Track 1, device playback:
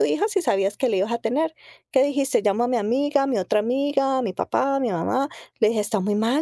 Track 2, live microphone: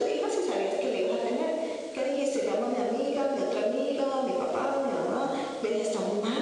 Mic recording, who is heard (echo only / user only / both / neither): echo only